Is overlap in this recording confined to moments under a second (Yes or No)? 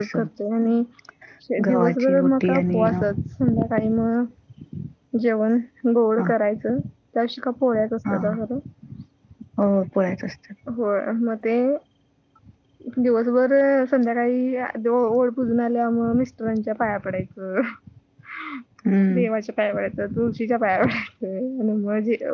No